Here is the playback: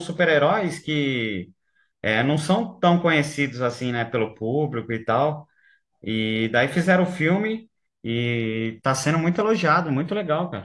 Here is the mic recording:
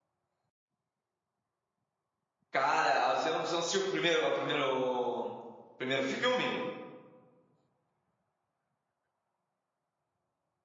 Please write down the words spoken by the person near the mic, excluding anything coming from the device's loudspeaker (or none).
Cara, você não, você não assistiu o primeiro, o primeiro, o primeiro filme?